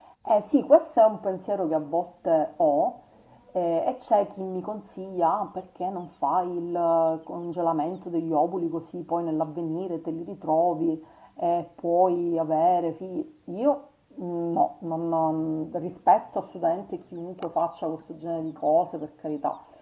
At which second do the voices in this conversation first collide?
none

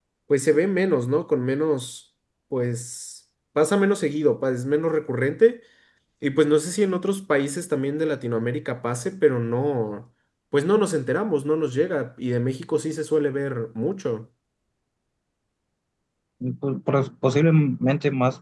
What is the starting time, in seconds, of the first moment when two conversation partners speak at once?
none

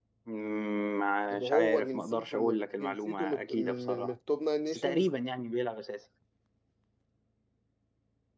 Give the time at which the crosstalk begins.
1.4 s

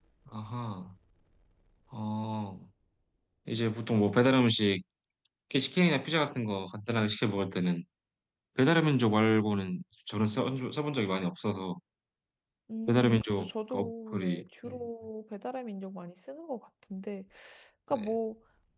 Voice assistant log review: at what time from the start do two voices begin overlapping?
12.9 s

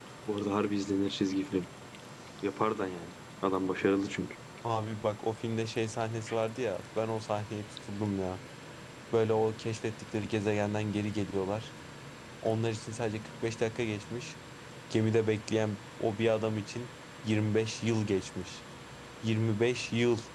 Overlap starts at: none

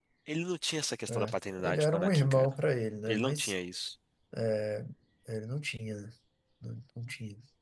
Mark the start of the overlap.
1.1 s

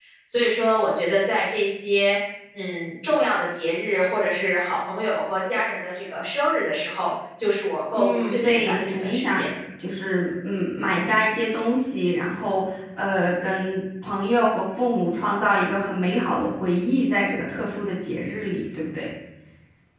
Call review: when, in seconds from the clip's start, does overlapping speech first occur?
7.9 s

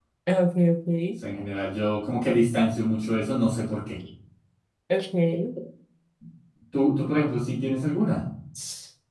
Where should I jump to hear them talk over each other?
none

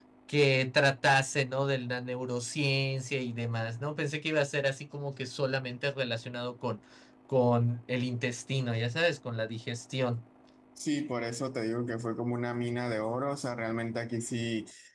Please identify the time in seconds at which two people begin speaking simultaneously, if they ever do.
none

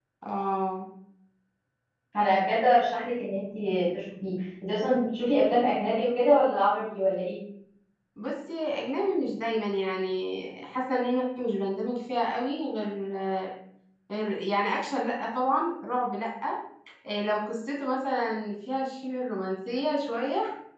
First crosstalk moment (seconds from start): none

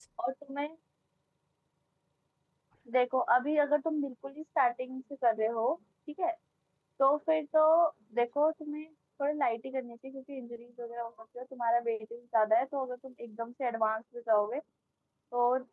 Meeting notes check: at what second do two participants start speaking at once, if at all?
none

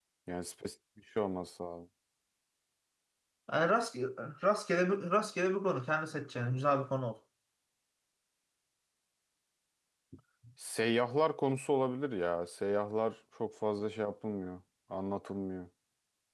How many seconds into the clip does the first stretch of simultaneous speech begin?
none

